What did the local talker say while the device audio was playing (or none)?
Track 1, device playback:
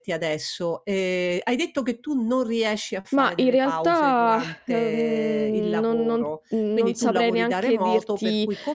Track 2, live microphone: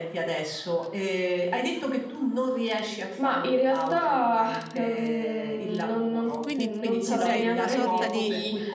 quindi ti e sei in una sorta di